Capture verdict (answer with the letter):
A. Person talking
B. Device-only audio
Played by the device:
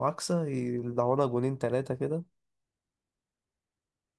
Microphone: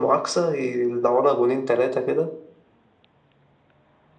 B